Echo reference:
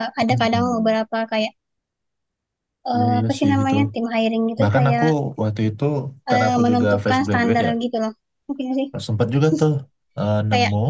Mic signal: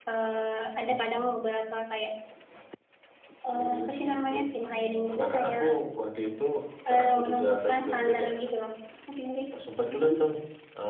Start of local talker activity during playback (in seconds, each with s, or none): 4.7 s